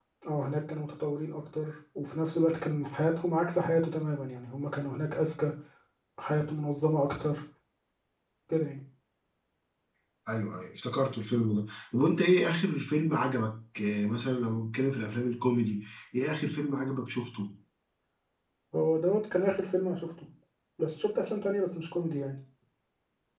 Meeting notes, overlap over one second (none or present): none